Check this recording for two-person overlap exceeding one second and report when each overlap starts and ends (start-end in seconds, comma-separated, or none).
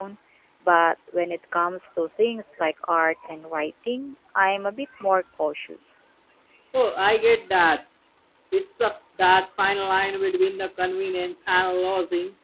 none